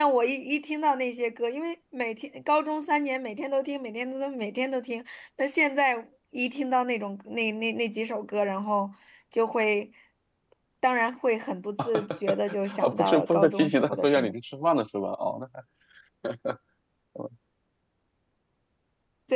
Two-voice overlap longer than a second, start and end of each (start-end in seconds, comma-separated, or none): 12.8-14.3